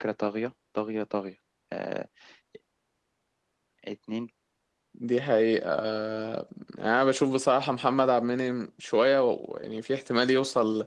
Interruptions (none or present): none